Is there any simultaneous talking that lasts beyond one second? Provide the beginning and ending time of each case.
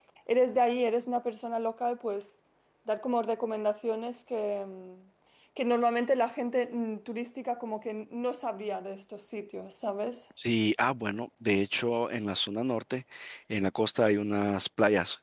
none

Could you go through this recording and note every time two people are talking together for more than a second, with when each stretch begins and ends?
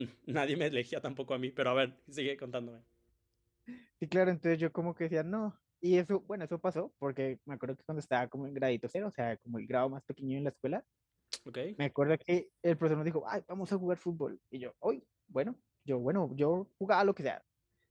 none

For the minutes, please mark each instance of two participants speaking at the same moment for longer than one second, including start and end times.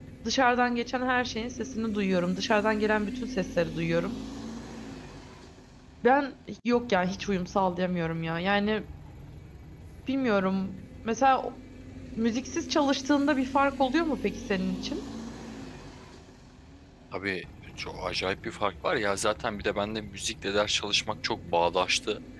none

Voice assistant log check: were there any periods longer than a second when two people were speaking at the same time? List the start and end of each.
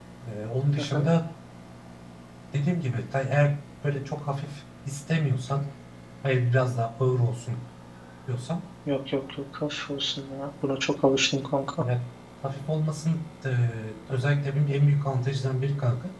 none

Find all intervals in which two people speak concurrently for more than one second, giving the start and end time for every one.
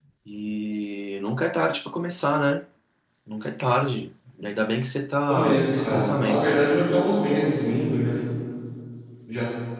5.3-6.5

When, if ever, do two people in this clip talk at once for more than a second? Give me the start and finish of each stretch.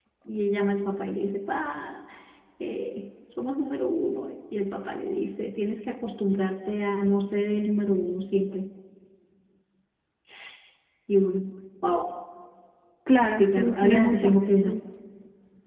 13.2-14.7

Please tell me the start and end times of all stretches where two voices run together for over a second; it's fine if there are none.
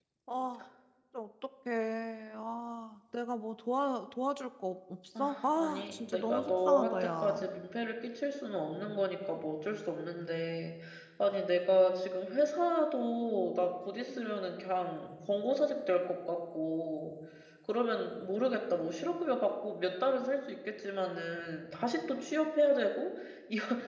5.2-7.5

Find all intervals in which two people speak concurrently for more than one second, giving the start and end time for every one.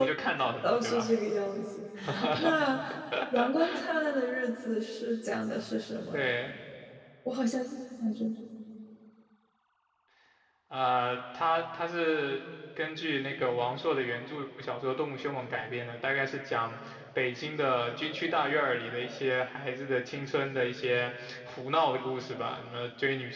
none

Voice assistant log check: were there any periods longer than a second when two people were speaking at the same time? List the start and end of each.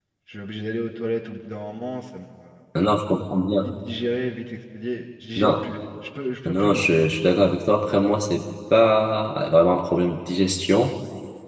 none

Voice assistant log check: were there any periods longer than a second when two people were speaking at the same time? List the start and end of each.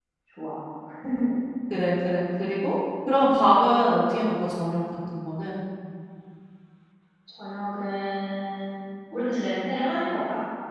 none

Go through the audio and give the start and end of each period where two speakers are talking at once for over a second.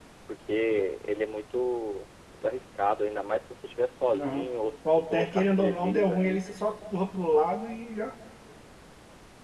4.9-6.4

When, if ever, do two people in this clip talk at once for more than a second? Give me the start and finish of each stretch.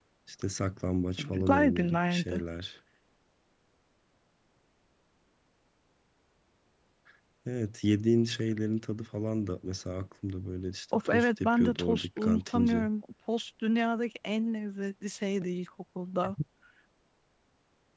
1.2-2.4, 11.1-12.9

